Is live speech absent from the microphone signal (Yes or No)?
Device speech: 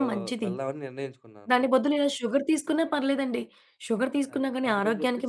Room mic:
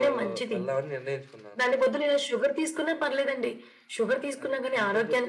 Yes